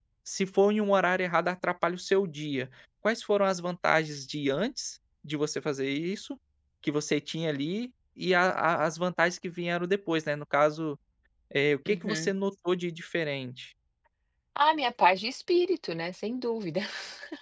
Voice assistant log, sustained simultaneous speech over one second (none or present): none